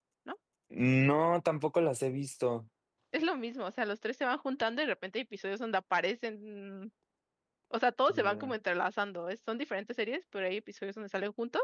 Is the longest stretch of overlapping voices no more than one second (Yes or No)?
Yes